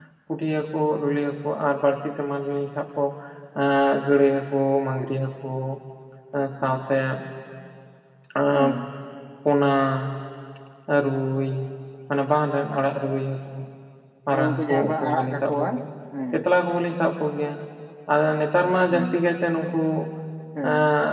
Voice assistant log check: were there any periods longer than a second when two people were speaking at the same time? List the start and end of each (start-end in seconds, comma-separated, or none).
14.3-15.7